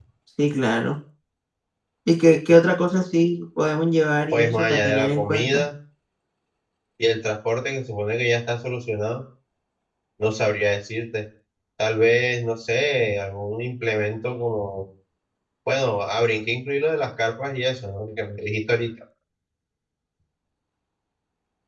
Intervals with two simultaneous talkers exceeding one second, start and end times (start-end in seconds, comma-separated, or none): 4.3-5.6